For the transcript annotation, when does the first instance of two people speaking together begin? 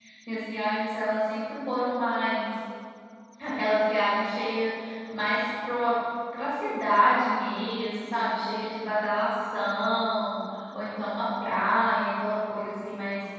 none

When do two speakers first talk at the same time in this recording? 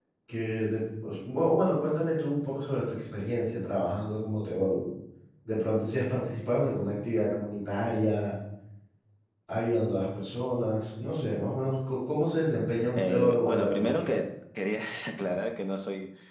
13.0 s

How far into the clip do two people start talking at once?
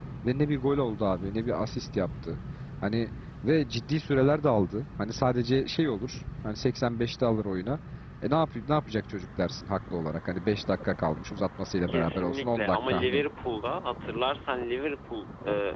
11.9 s

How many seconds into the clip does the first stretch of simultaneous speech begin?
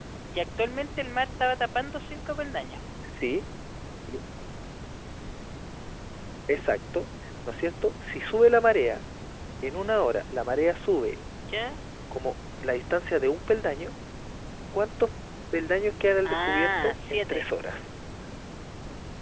16.2 s

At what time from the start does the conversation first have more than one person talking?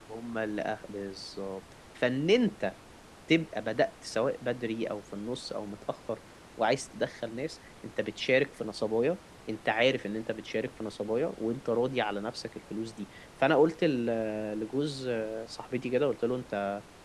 none

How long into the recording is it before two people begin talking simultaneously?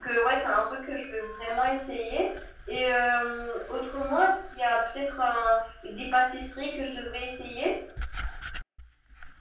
none

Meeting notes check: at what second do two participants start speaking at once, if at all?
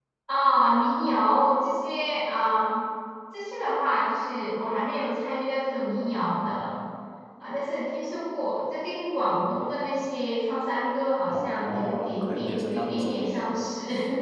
11.3 s

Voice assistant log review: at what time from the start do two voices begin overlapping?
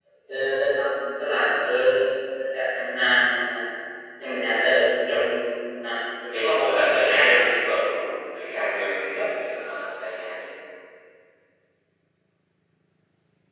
6.3 s

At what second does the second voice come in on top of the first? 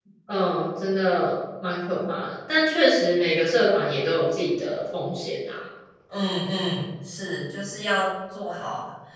none

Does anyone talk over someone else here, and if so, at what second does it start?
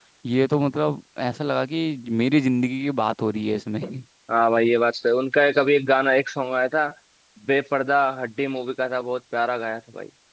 none

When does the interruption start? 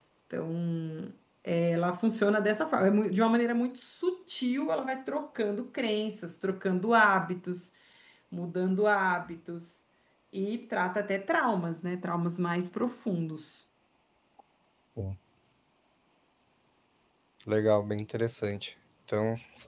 none

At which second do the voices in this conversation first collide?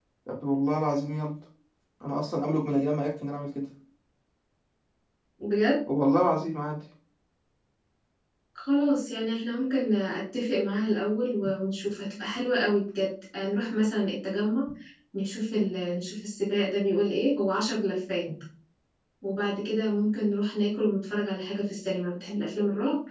none

